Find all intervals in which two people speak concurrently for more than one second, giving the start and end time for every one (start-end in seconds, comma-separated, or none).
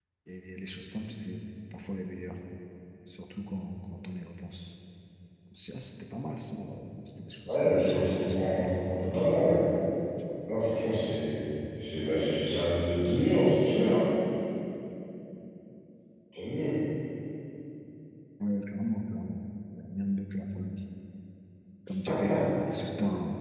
7.5-8.7